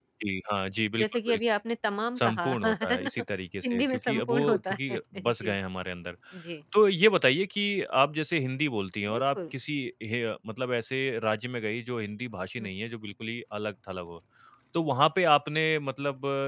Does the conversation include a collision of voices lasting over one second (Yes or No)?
Yes